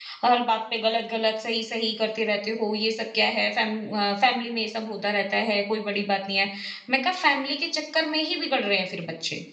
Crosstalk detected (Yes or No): No